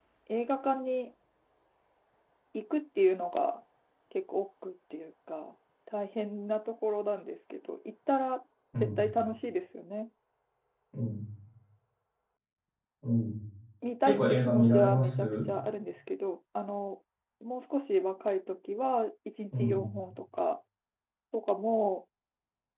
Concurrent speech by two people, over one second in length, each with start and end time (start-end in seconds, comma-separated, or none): 14.1-15.3